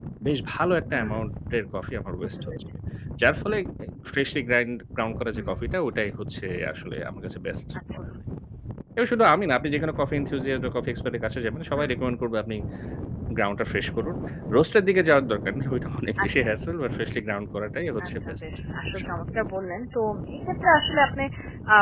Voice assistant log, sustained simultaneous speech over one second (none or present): none